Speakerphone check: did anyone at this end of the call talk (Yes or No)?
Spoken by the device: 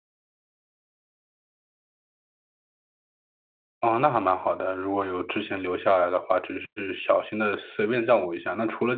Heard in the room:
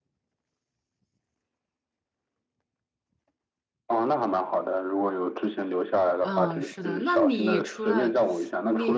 Yes